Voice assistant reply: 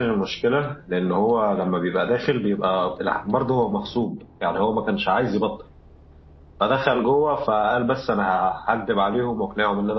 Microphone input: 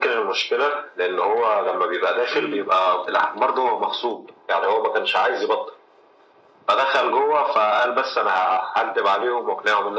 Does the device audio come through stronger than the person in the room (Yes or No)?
Yes